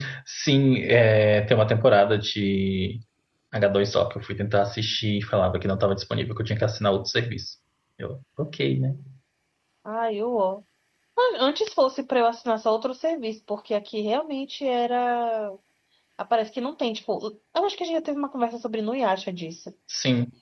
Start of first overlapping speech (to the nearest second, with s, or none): none